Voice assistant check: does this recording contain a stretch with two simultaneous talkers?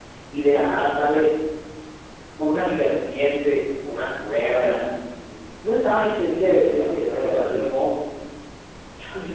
Yes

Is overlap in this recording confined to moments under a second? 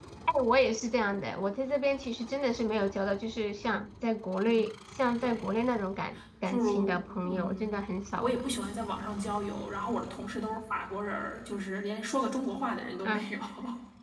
No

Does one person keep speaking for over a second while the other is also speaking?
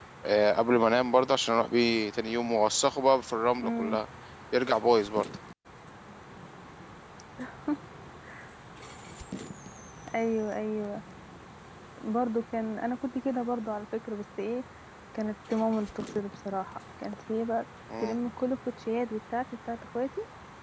No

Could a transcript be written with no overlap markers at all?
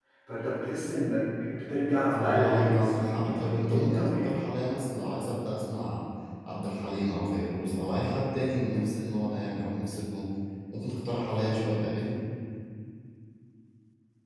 No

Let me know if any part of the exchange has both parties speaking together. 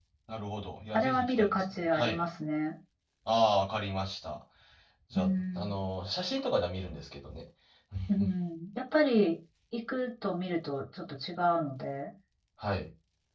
Yes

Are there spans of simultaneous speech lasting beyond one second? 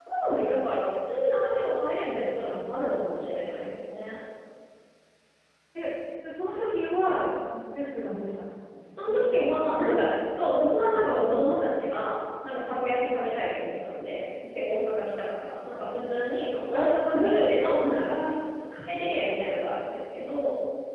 Yes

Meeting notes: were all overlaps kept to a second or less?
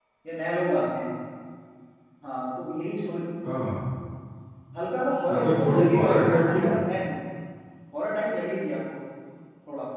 No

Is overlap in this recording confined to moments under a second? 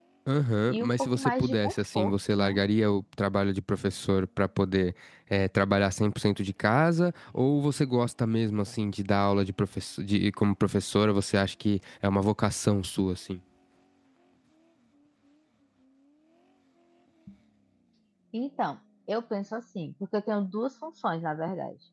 No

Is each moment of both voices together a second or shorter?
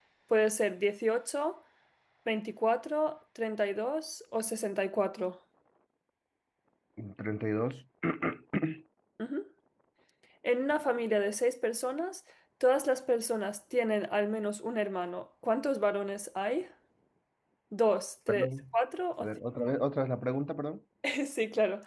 Yes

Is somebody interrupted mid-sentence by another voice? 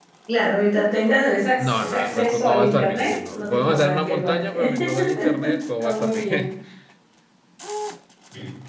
Yes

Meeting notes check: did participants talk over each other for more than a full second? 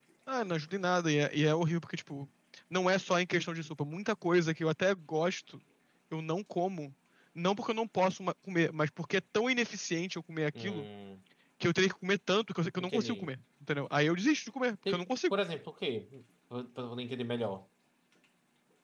No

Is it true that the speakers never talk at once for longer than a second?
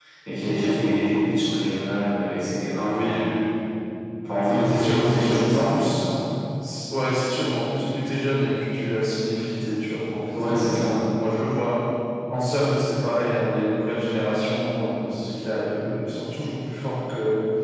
No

